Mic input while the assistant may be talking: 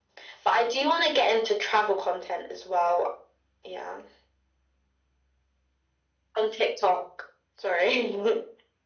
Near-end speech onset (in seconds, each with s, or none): none